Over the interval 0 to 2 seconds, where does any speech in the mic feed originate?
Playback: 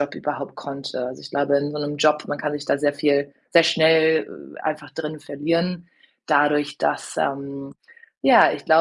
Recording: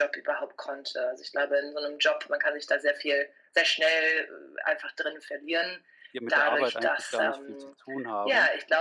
echo only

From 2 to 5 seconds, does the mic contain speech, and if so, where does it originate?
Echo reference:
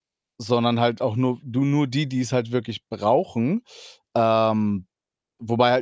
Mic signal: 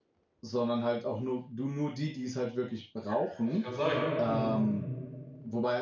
both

